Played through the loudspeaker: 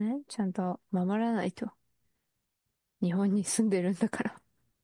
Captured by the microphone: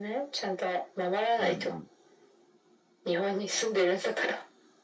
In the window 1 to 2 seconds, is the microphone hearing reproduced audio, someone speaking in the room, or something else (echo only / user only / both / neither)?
both